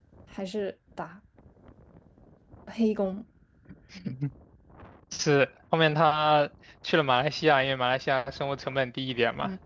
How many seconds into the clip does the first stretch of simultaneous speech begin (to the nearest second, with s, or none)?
none